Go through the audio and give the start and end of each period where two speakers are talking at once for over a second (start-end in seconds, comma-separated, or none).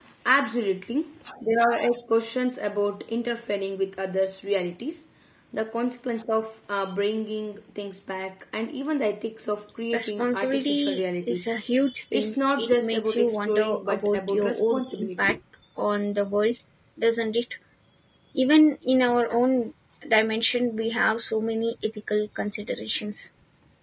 9.9-11.5, 12.1-15.4